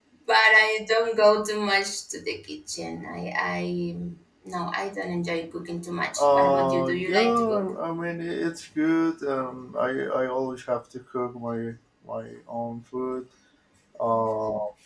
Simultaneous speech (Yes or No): Yes